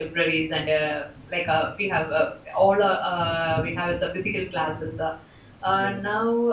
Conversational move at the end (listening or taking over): listening